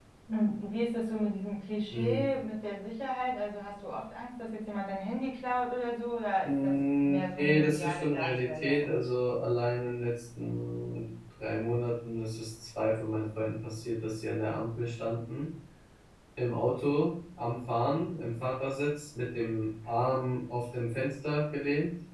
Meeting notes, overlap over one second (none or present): present